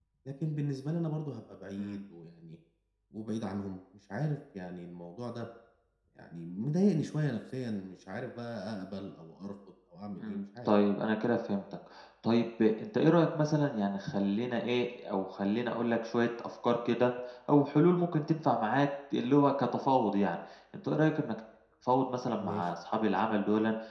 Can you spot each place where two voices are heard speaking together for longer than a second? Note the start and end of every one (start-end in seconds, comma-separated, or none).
none